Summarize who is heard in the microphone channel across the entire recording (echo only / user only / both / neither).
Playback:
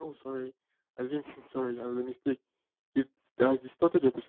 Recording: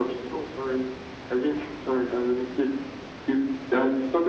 echo only